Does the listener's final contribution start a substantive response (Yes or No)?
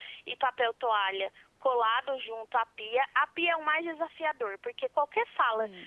No